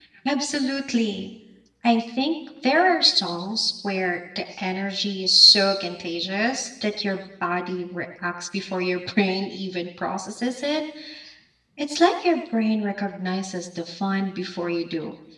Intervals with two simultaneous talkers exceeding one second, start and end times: none

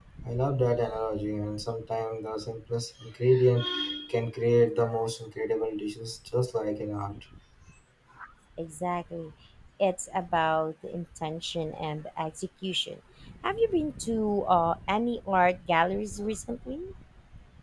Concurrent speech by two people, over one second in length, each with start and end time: none

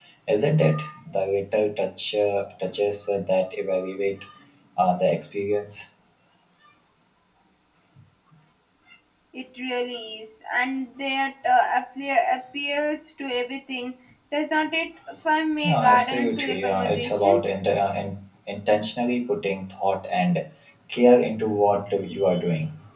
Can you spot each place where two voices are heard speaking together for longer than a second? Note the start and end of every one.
15.6-17.4

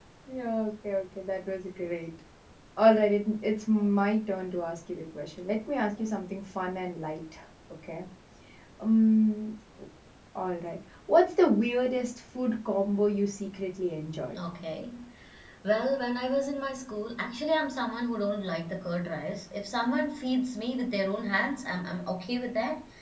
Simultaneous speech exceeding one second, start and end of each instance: none

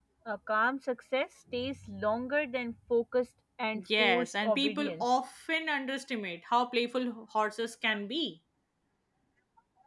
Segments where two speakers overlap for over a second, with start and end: 3.7-5.0

